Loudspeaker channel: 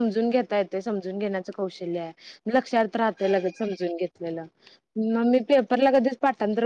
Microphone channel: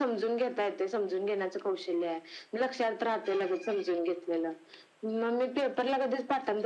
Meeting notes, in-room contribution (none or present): none